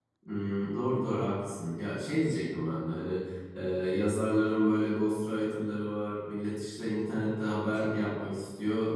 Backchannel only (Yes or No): Yes